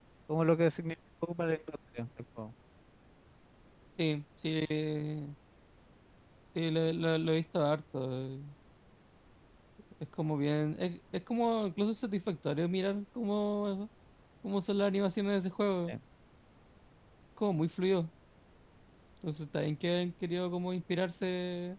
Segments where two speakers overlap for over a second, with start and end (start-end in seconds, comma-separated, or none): none